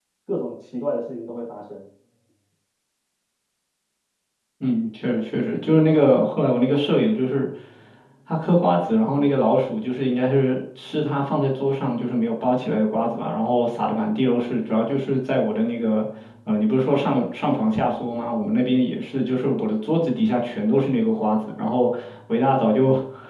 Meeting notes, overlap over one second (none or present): none